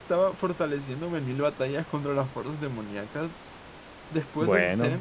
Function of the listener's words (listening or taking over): listening